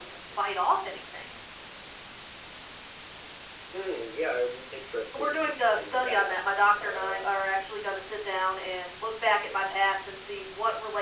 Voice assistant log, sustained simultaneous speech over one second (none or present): present